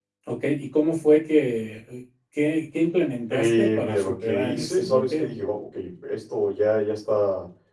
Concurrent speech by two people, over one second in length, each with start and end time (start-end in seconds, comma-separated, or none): 3.3-5.3